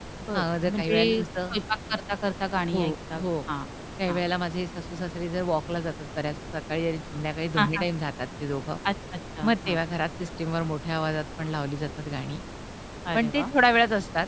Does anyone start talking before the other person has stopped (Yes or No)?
Yes